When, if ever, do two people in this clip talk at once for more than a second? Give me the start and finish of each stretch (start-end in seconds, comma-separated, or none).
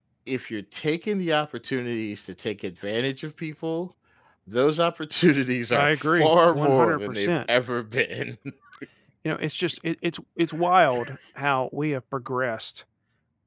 5.7-7.3